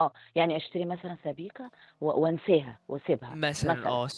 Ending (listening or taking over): taking over